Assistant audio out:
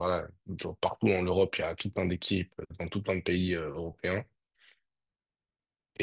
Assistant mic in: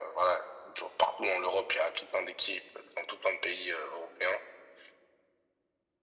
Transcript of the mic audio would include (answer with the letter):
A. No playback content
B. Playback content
B